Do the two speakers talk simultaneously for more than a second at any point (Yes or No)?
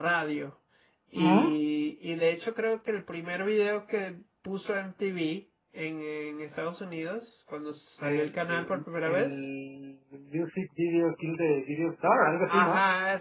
Yes